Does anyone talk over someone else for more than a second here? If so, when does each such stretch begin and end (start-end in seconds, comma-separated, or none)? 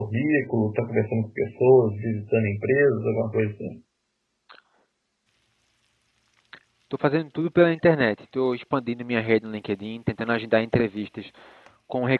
none